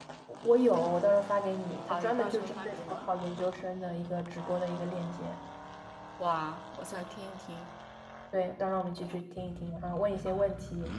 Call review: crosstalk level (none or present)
present